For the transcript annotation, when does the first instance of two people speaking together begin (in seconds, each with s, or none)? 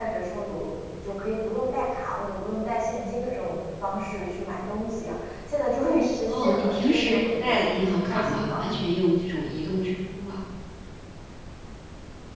6.3 s